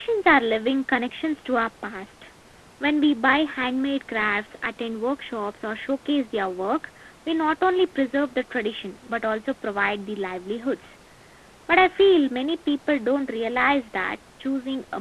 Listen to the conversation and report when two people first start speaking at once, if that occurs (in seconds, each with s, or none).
none